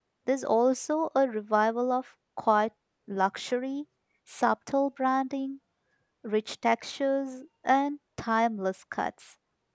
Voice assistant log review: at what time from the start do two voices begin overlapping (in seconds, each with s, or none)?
none